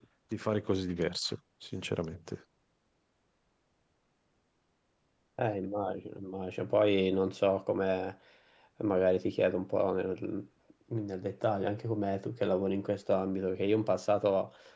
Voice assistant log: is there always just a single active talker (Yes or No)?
Yes